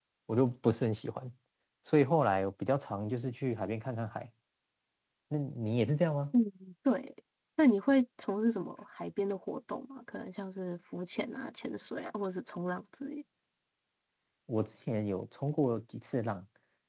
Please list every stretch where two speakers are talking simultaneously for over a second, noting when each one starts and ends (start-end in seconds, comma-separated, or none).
none